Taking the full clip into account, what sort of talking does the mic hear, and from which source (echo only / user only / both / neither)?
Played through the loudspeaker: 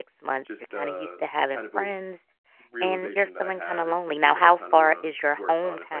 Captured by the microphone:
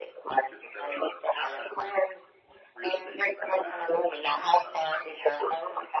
echo only